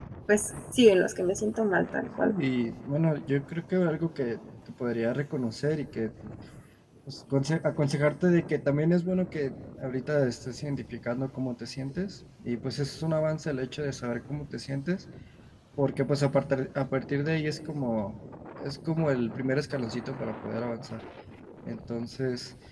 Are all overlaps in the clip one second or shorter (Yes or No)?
Yes